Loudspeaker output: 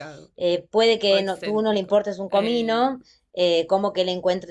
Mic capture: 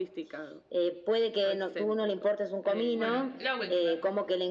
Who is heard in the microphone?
both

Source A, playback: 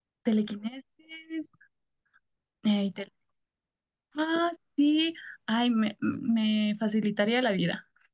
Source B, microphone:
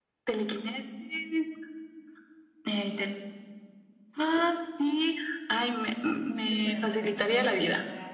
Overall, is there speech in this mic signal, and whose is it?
both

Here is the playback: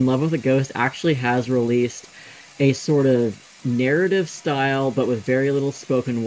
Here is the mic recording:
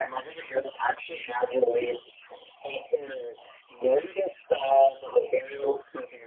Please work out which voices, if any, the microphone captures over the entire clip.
echo only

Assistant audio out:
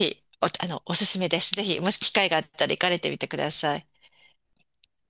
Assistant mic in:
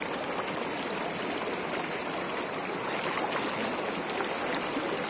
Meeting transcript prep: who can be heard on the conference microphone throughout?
neither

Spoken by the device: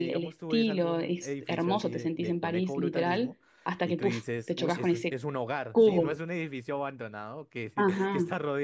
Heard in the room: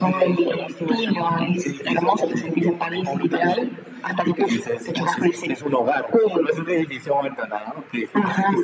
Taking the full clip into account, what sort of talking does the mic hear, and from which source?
echo only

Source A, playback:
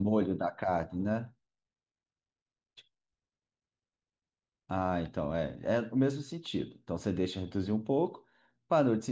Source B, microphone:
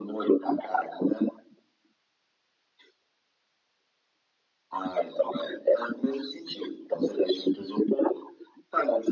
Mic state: echo only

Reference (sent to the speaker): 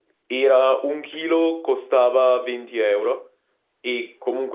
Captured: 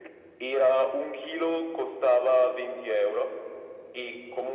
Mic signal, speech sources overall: echo only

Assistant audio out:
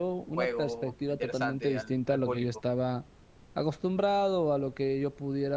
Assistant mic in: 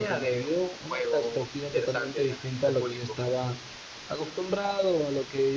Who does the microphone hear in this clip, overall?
echo only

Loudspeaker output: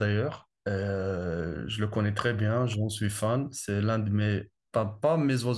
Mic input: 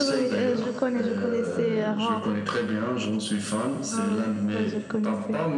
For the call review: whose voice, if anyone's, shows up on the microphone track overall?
both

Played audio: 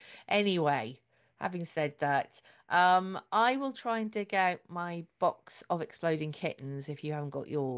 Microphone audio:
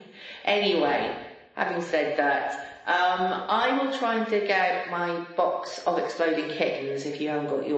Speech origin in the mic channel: echo only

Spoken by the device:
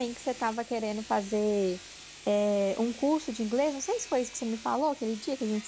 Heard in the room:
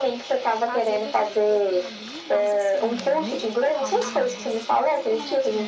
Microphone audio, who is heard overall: both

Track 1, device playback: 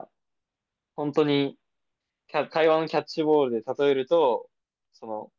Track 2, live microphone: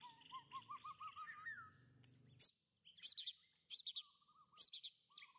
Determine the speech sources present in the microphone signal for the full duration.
neither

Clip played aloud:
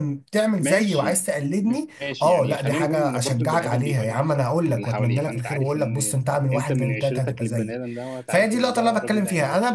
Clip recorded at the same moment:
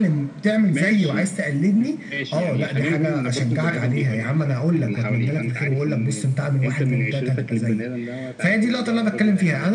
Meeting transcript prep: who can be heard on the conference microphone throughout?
echo only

